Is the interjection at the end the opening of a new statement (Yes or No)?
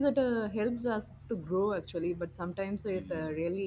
No